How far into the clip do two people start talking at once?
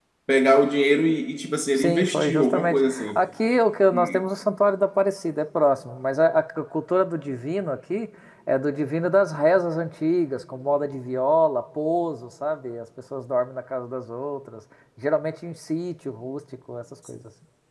1.8 s

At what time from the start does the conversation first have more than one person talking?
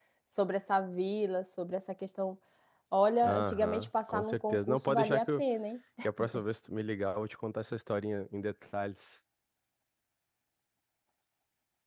3.2 s

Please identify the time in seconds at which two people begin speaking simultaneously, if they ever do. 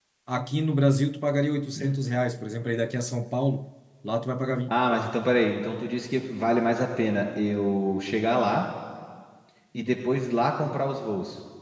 none

